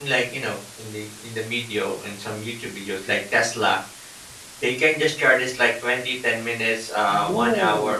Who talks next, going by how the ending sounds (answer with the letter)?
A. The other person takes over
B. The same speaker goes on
A